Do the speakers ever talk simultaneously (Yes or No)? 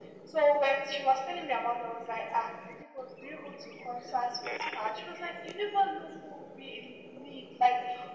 No